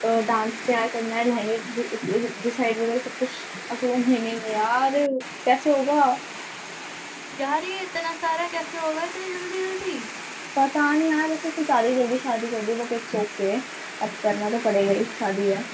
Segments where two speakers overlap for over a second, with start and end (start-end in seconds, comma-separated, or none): none